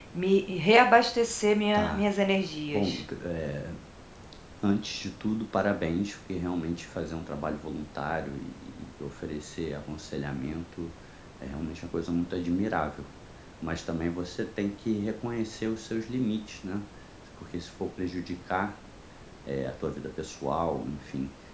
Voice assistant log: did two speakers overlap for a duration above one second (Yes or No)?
No